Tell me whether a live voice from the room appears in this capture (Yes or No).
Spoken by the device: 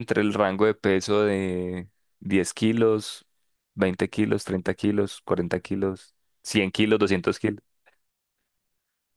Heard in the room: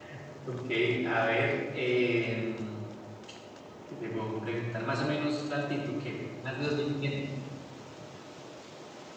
Yes